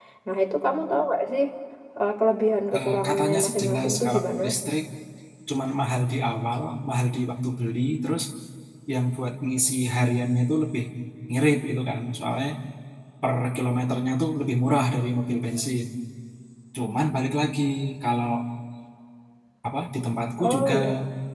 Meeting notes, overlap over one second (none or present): present